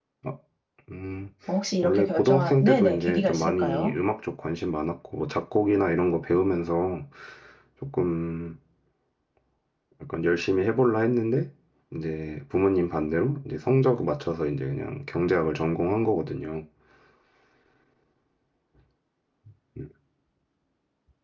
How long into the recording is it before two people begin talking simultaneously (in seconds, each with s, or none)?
1.8 s